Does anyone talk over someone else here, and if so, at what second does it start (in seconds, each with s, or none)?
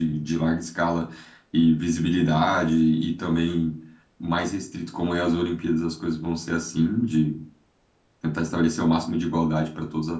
none